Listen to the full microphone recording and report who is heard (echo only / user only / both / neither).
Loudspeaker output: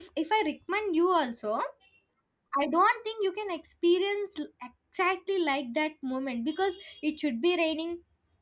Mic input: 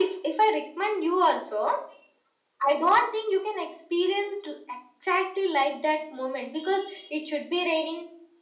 echo only